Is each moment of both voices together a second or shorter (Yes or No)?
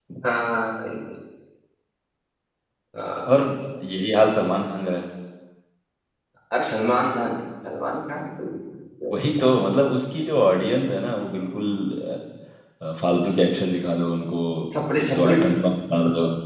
Yes